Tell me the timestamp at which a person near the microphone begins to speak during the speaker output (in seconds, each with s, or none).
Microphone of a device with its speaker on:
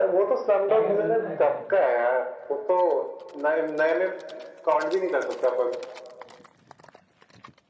0.7 s